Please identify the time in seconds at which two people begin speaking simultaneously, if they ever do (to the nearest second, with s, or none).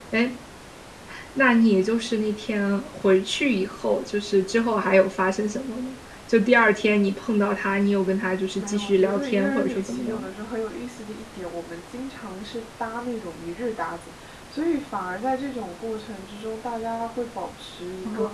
9 s